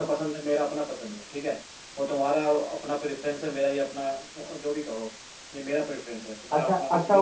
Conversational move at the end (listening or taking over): taking over